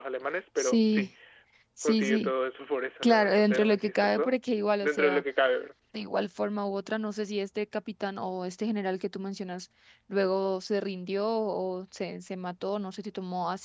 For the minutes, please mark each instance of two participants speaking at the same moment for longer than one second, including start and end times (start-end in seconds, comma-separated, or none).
3.0-4.3